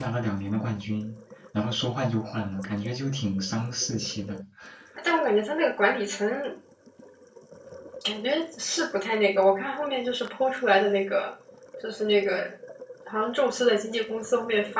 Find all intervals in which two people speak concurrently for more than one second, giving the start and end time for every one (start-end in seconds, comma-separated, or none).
none